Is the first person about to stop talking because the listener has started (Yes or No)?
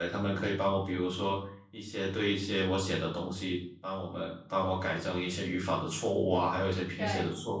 No